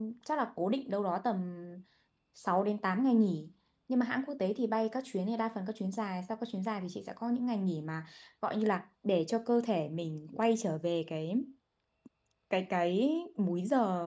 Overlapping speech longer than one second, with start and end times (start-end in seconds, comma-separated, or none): none